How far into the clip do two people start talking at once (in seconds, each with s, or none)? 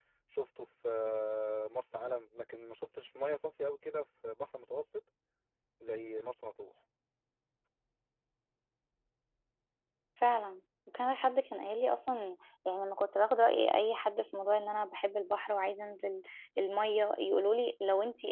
none